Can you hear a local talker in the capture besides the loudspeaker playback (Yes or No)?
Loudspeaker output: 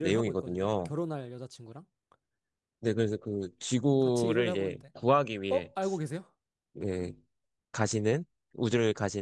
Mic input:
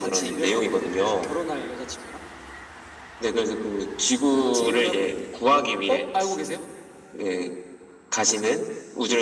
No